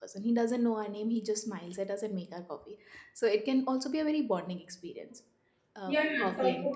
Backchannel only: No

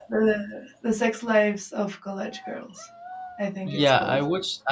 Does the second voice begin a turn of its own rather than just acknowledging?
Yes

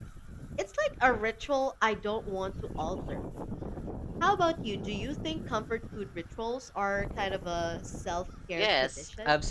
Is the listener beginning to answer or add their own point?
Yes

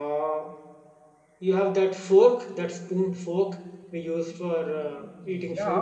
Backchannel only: No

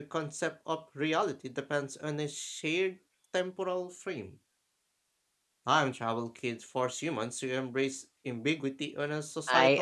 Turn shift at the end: Yes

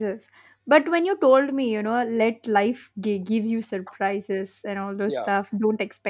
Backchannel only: Yes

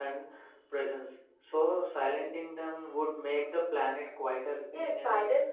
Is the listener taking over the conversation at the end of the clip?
Yes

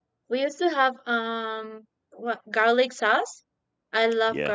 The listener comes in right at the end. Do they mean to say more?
Yes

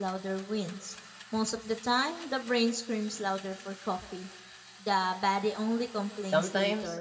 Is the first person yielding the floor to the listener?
Yes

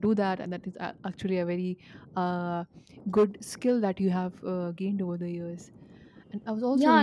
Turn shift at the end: Yes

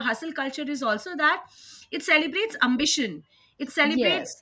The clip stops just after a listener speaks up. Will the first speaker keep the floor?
Yes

